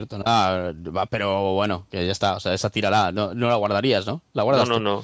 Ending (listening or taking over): taking over